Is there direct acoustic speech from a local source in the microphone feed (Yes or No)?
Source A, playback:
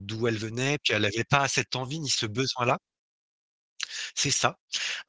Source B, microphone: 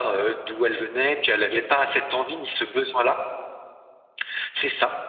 No